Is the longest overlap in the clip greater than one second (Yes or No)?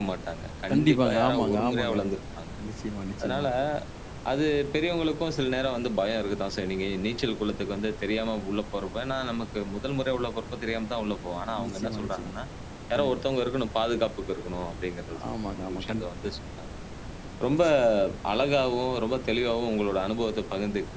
Yes